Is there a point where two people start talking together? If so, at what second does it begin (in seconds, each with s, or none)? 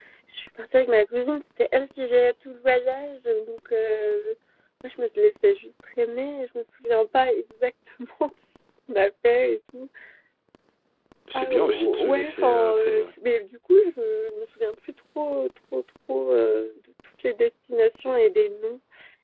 11.4 s